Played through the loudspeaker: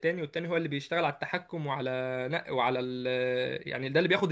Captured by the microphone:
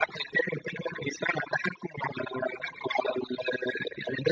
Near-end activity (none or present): none